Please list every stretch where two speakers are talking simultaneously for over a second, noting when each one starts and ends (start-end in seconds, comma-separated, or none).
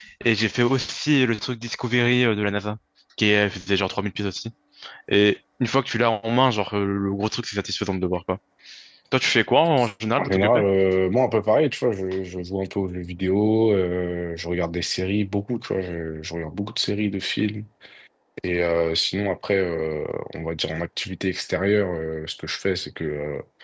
none